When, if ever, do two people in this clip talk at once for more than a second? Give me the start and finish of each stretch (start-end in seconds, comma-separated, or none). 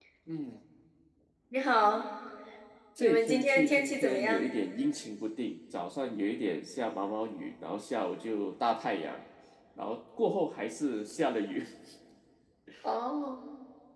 3.0-4.5